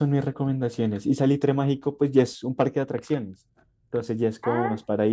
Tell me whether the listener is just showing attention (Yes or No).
Yes